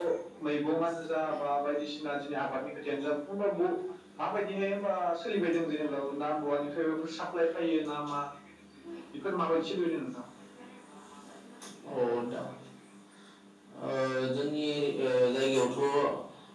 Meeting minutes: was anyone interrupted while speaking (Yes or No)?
No